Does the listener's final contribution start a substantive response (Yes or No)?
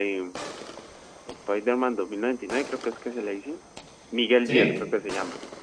No